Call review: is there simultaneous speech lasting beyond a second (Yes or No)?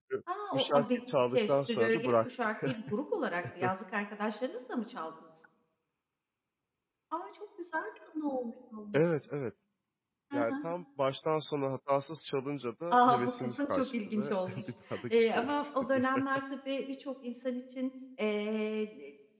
Yes